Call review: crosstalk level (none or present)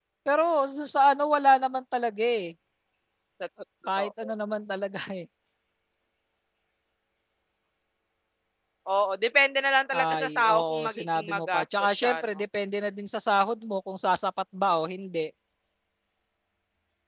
present